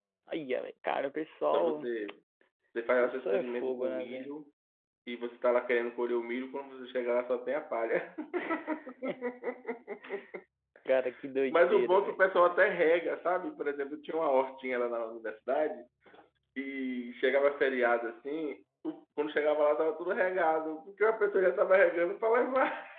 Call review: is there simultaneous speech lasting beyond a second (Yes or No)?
Yes